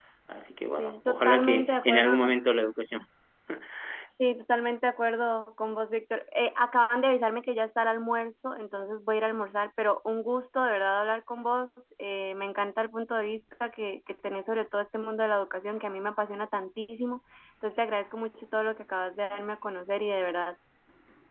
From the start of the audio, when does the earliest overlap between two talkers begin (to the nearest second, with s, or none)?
1 s